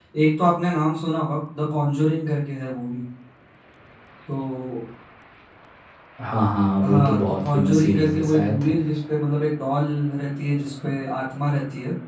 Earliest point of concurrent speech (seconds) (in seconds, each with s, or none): 6.8 s